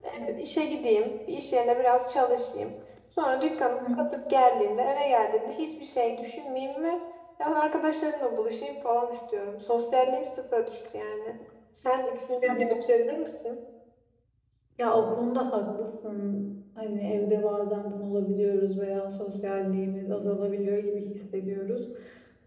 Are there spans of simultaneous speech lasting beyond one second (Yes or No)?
No